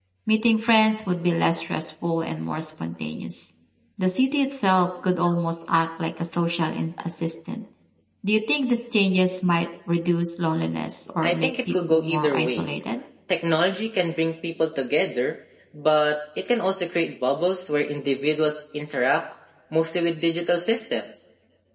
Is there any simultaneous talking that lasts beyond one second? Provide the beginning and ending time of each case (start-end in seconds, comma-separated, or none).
11.2-12.8